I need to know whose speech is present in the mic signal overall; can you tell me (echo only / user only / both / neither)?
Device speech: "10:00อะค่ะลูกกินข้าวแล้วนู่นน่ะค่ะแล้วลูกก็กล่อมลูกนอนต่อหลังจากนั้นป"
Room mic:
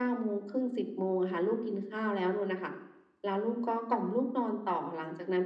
echo only